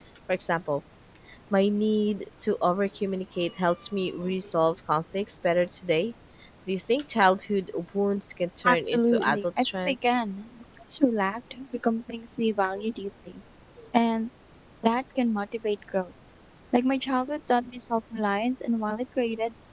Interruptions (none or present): present